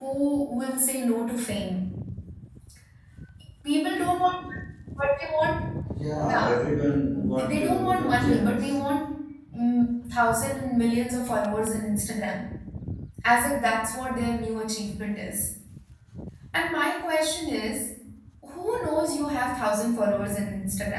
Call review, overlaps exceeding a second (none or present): present